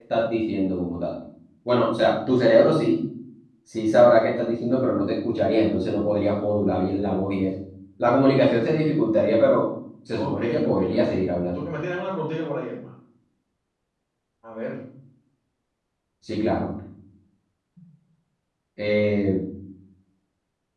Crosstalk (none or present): present